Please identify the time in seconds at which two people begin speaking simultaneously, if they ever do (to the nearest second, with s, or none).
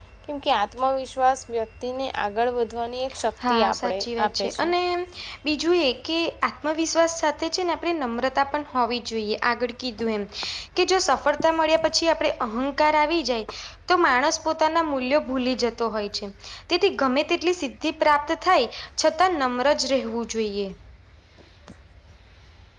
3 s